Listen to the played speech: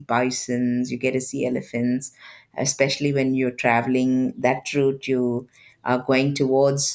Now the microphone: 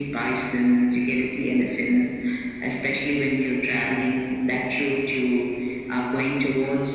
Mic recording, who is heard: echo only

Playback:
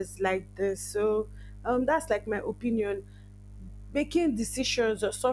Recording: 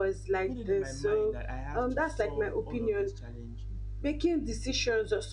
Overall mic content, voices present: both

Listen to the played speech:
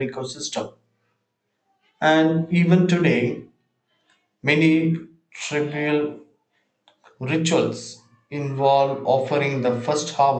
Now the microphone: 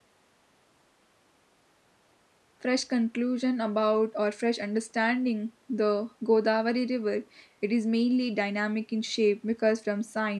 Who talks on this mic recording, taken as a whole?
user only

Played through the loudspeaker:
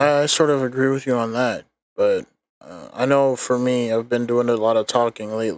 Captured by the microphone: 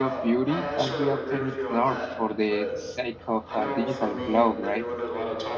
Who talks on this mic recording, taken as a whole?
both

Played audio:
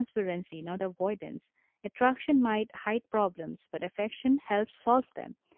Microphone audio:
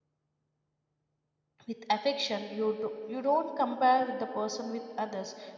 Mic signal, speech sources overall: user only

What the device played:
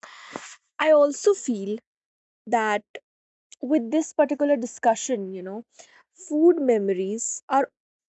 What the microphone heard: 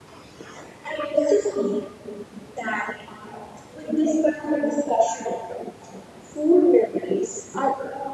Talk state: echo only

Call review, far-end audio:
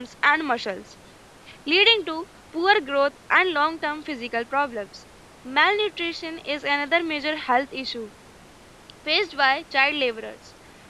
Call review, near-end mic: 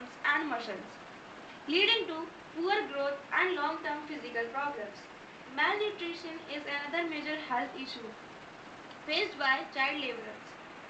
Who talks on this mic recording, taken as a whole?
echo only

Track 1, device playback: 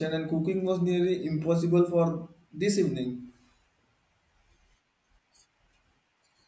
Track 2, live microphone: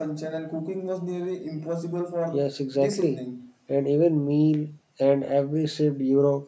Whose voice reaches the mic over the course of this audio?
both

